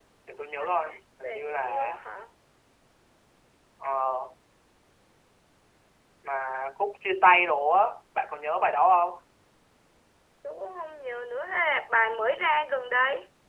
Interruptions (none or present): present